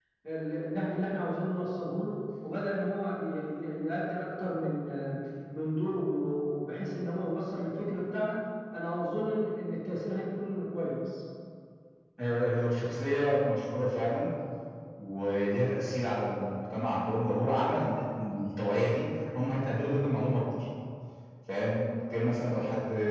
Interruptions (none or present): none